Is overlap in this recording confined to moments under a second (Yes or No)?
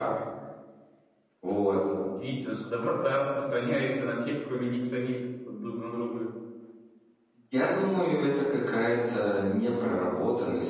Yes